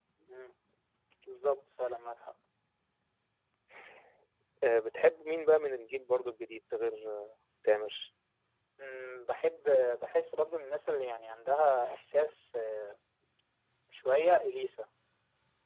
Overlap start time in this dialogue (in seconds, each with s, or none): none